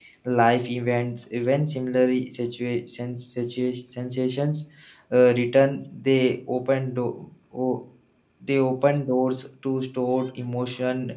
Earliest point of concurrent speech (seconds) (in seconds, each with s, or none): none